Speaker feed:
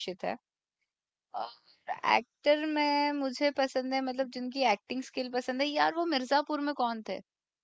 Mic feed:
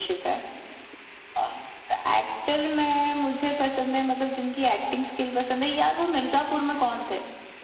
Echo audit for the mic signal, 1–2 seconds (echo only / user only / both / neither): echo only